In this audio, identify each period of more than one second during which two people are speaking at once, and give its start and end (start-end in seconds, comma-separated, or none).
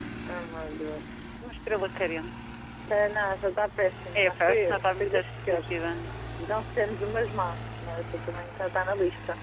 4.2-5.6